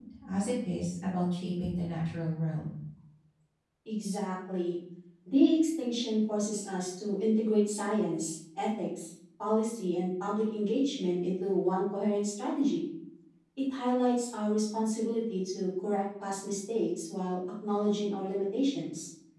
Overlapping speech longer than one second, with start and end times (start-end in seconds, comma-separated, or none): none